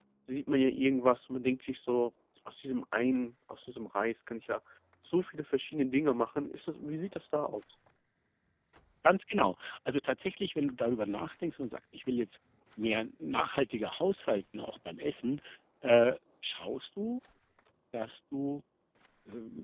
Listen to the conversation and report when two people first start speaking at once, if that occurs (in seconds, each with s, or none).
none